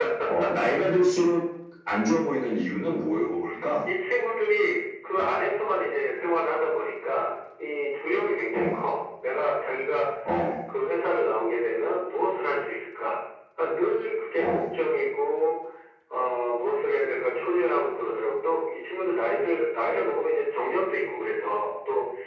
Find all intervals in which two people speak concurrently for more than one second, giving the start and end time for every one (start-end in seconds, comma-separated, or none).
none